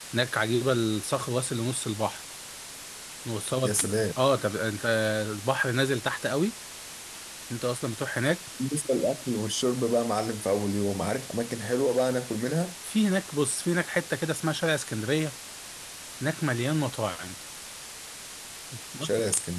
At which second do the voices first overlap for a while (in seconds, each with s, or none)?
none